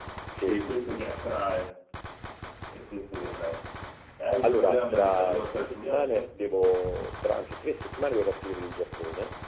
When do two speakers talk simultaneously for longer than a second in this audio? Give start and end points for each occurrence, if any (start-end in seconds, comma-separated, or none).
4.4-6.2